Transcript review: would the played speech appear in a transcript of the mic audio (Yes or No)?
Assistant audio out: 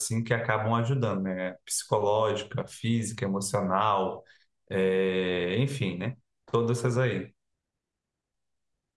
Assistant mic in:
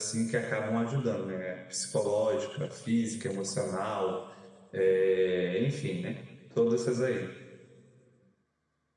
Yes